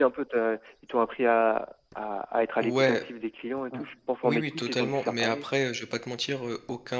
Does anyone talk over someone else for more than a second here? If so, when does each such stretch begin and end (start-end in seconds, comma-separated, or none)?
4.2-5.4